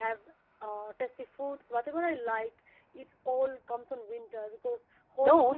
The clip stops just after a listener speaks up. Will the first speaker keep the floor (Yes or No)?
No